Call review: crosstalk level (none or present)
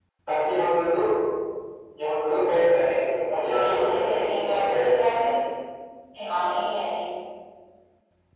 present